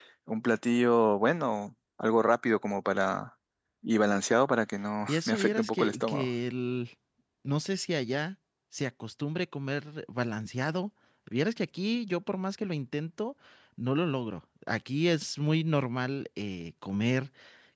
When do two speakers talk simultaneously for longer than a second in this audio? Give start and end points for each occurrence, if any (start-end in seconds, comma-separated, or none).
5.1-6.3